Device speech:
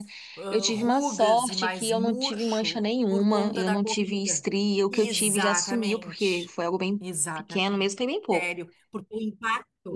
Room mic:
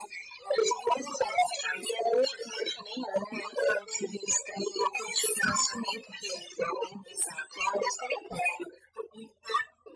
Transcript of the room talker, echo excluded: none

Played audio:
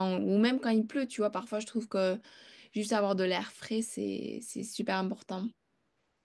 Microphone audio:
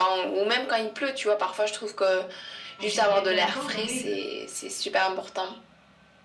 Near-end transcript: Donc c'est ce qui est intéressant. Donc, oui,

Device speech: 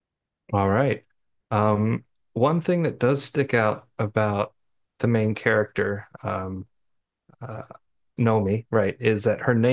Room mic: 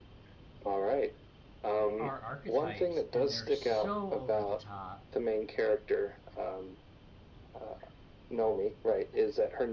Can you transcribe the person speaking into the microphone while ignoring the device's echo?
are archetypes and they're so over the top

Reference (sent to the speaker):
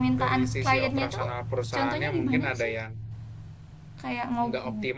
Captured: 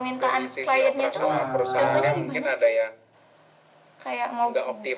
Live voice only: Walah.

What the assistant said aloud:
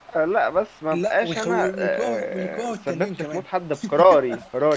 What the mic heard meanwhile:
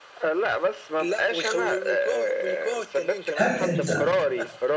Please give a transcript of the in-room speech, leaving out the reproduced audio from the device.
هل انت

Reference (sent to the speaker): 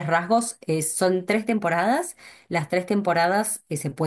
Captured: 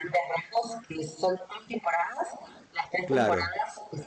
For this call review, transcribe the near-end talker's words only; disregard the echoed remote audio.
Claro.

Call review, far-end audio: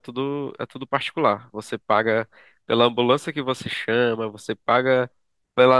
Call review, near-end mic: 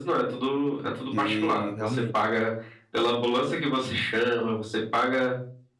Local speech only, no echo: porque realmente.

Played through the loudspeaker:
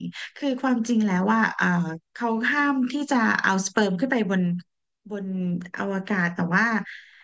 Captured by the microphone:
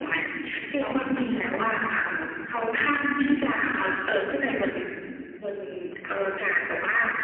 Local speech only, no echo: กี่ตอนคะทั้งหมดกี่ตอน

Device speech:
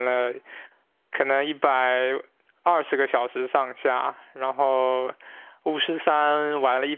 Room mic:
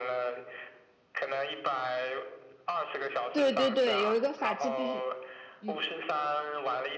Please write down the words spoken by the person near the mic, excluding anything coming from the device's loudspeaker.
对对对，有一个法器必须，嗯，

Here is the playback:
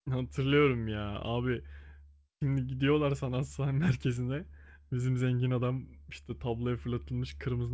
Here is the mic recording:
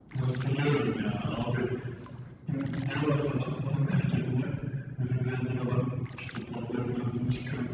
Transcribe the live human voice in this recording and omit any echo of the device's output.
none

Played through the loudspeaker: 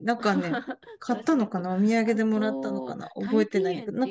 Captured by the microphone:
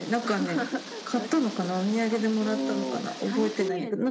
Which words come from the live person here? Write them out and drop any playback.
none

